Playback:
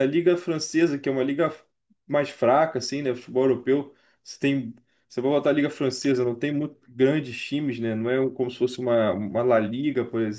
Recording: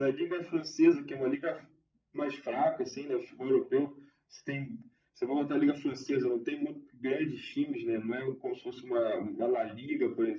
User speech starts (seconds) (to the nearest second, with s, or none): none